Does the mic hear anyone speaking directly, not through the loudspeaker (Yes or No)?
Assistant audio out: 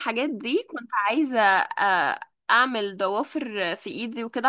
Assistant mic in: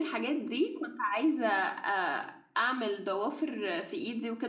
No